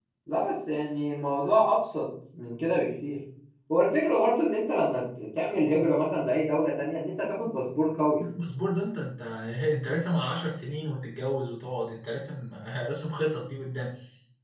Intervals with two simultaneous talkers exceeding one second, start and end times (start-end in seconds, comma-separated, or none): none